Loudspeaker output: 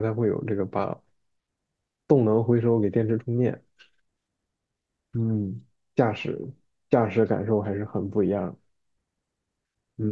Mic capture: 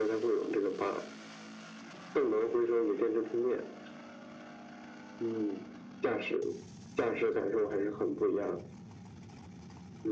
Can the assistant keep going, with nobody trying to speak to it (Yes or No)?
Yes